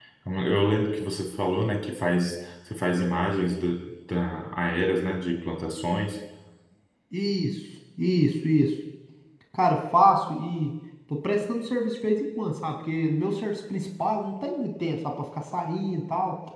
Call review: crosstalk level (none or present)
none